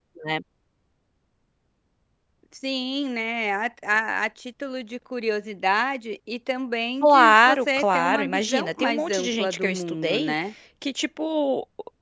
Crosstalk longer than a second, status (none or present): present